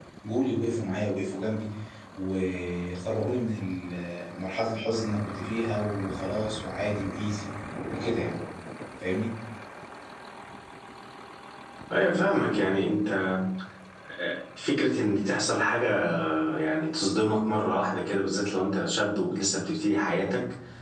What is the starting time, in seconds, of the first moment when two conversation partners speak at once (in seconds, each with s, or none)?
none